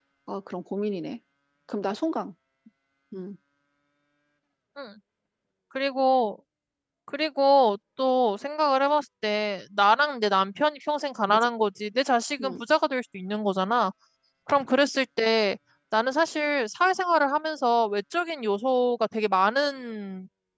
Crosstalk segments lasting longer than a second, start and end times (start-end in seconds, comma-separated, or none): none